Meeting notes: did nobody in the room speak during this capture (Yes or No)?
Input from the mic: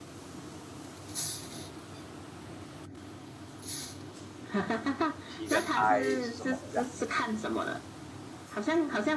No